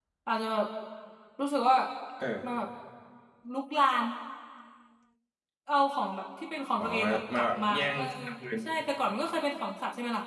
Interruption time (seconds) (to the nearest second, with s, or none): 7 s